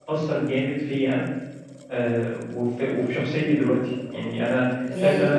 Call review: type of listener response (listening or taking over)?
taking over